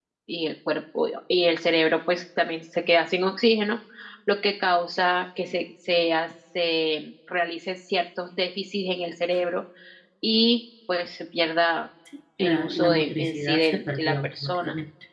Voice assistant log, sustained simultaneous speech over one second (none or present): present